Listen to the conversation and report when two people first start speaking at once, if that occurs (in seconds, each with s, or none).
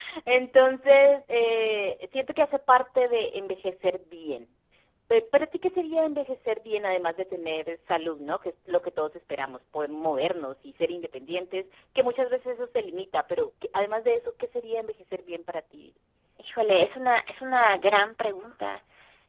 none